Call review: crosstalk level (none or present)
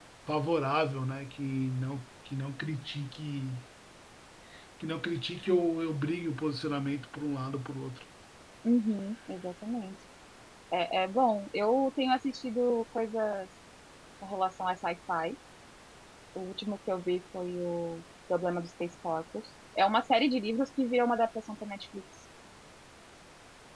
none